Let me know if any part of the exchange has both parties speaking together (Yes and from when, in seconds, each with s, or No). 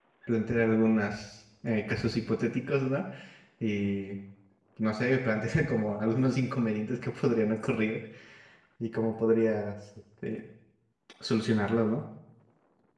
No